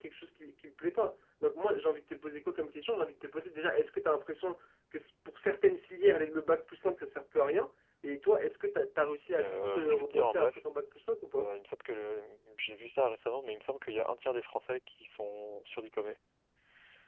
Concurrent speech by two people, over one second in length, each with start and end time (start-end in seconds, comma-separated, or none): 9.3-10.6